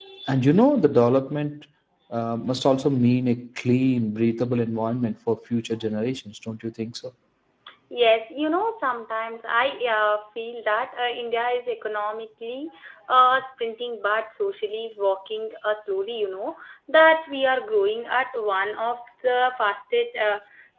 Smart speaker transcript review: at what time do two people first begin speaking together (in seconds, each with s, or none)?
none